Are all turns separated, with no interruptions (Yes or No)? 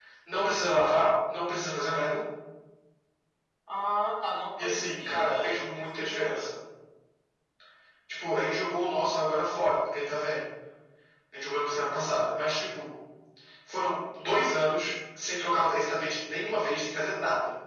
No